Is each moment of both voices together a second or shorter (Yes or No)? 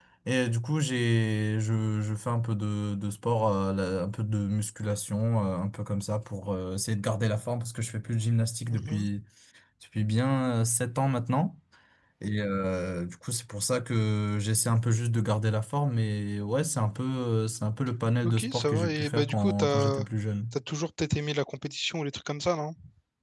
No